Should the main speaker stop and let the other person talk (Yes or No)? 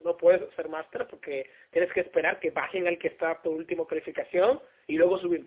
No